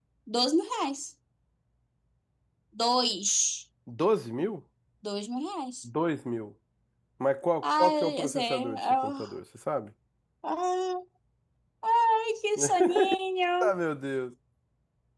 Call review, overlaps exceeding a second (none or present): present